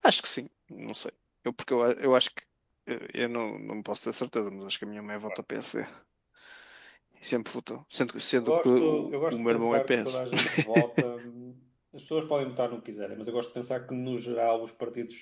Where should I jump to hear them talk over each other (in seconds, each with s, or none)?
8.4 s